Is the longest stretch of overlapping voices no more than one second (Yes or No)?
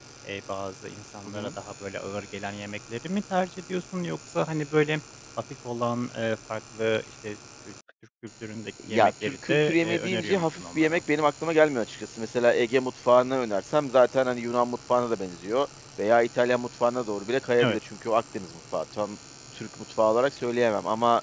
No